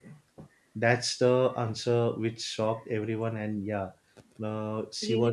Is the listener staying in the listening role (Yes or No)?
Yes